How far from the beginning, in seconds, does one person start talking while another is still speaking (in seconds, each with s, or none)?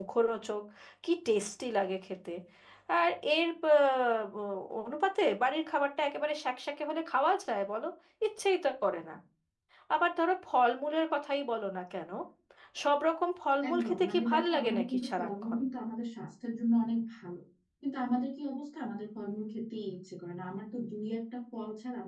13.7 s